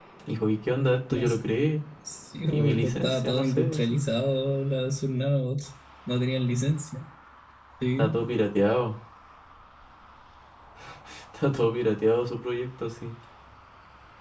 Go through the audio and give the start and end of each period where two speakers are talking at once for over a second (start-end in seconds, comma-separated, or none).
2.5-4.0